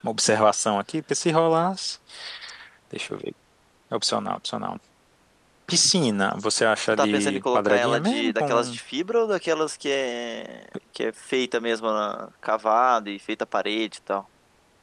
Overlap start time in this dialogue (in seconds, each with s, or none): 6.8 s